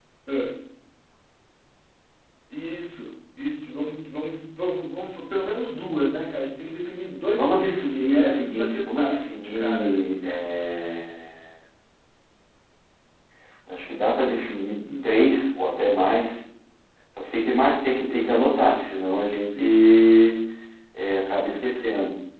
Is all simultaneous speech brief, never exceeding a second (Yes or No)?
No